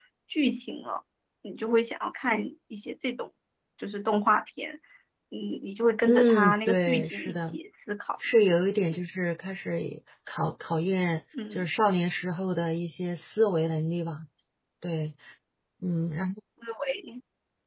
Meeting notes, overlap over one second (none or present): present